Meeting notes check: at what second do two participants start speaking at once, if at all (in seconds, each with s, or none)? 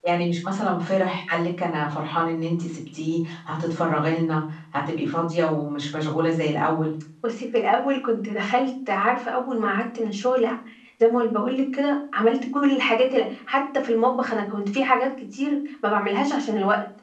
none